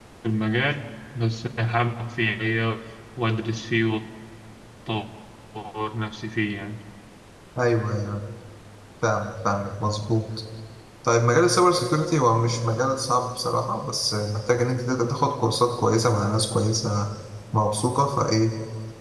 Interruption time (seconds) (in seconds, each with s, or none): none